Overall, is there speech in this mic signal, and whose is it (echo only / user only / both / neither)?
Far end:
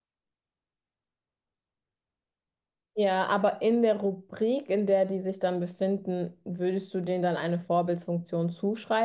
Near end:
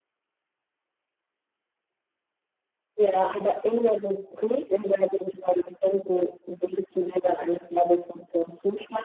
echo only